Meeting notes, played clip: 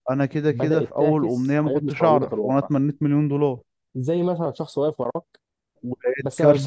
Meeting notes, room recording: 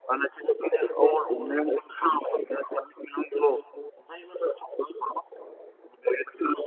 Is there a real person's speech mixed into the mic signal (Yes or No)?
No